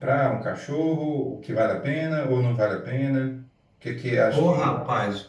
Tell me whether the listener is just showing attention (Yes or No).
No